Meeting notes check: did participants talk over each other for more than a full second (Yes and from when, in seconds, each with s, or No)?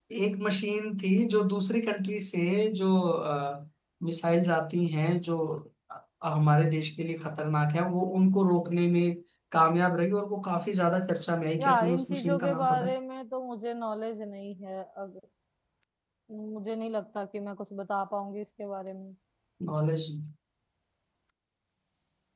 Yes, from 11.6 s